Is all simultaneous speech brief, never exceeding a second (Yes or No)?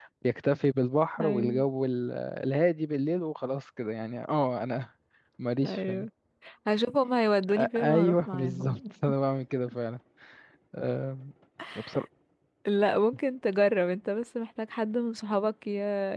No